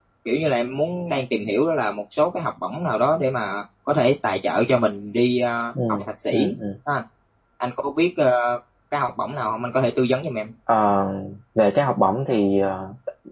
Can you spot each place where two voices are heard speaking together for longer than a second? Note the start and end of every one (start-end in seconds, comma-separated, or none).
none